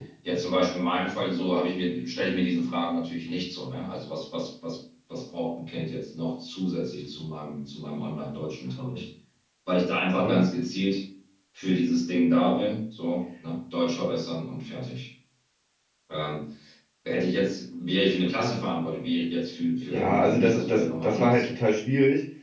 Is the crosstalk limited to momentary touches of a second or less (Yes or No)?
No